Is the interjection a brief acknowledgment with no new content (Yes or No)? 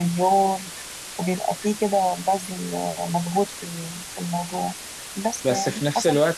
No